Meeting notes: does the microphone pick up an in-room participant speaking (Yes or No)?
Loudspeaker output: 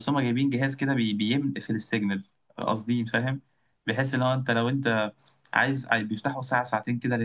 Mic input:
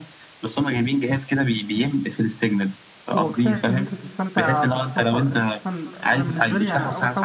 Yes